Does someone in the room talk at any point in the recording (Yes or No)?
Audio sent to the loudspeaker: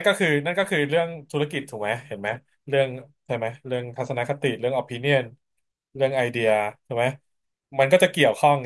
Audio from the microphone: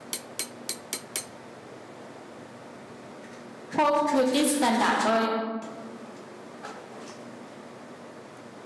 Yes